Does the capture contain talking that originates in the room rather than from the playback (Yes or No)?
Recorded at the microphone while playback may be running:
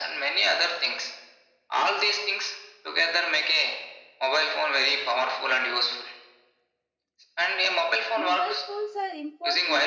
Yes